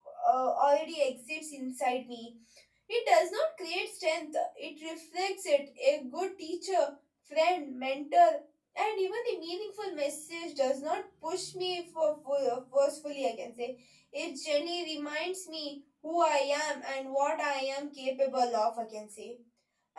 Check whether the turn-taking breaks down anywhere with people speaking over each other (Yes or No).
No